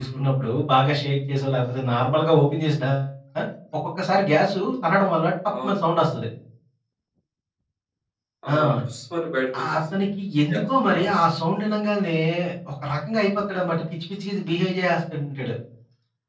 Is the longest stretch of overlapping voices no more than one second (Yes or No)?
Yes